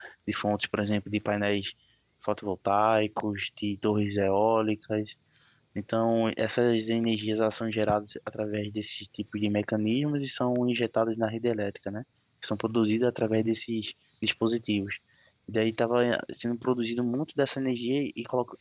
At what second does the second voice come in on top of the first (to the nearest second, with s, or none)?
none